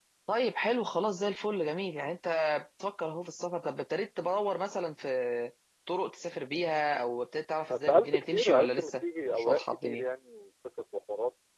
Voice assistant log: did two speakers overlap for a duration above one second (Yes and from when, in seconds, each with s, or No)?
Yes, from 7.7 s